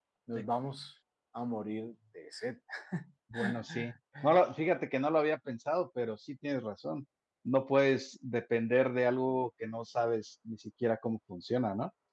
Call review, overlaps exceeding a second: none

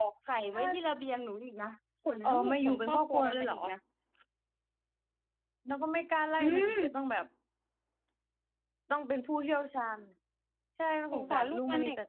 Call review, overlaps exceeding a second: present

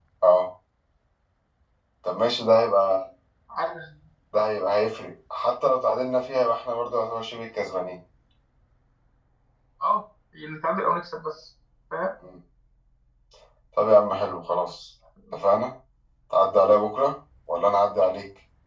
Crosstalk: none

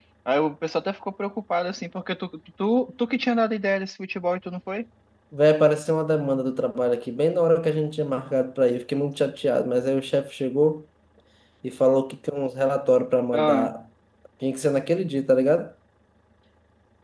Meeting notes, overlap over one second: none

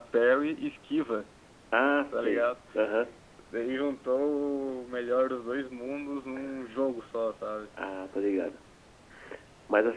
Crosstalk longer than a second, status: none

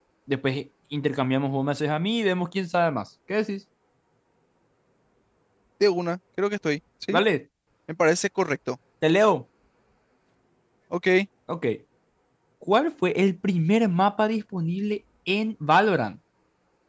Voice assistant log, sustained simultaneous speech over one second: none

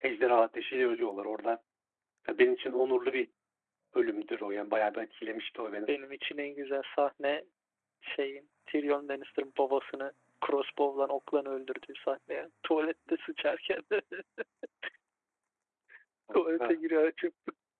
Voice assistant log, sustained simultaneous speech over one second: none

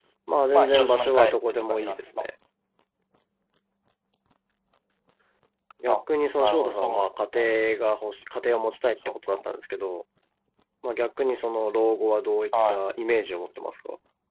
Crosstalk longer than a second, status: present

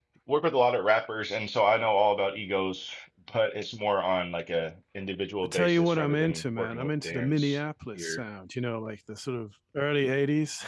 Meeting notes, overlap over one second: present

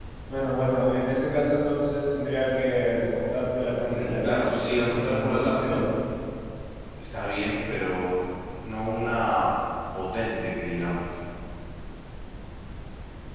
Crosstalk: present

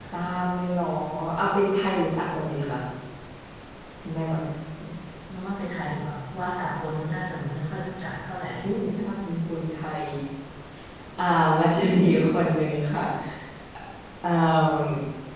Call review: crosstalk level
none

